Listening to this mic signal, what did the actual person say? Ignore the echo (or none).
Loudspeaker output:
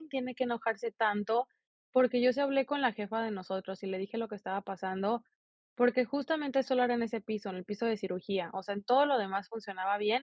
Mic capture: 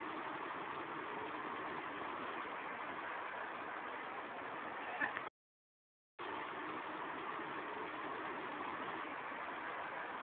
none